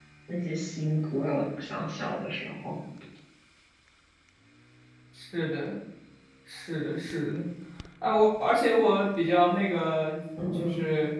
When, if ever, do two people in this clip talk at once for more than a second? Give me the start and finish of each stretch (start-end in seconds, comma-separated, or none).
none